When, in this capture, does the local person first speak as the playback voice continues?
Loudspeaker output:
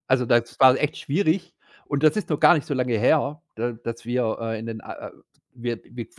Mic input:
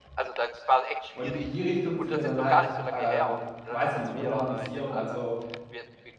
1.1 s

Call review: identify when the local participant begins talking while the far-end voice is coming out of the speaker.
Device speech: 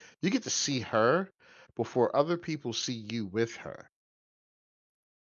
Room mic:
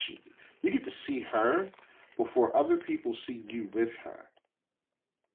none

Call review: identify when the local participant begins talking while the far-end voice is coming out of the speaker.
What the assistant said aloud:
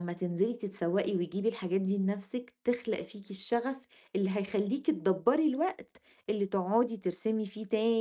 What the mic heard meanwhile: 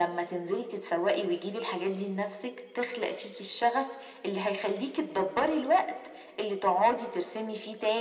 none

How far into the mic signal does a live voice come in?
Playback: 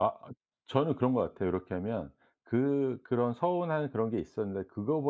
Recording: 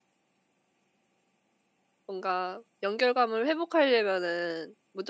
2.0 s

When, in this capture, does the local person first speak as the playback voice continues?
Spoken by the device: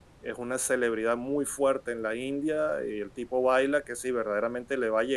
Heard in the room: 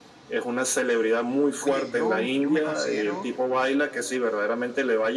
1.6 s

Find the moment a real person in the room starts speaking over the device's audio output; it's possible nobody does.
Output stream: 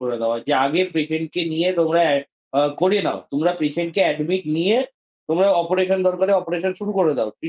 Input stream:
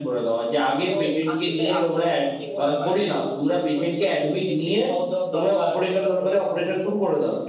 0.9 s

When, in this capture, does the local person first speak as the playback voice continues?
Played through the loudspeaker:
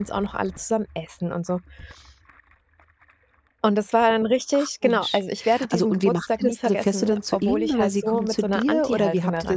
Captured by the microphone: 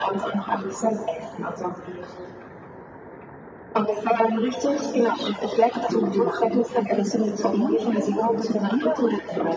none

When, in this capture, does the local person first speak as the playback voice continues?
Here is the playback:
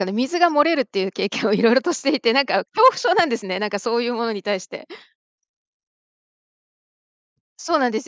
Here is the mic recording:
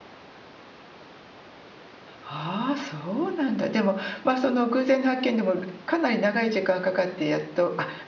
2.2 s

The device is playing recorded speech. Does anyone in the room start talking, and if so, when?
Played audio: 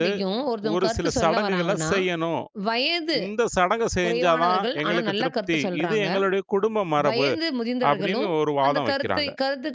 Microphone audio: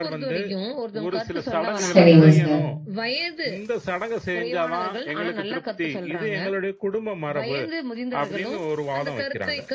1.8 s

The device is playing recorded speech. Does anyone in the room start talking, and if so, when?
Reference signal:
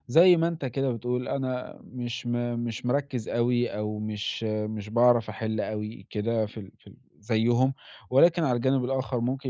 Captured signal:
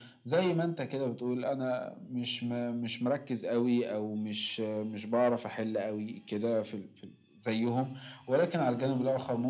none

